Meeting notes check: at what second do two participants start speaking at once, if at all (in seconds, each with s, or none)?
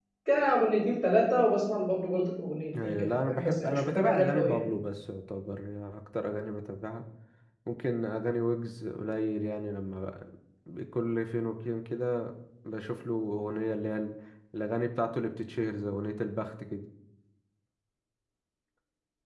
2.7 s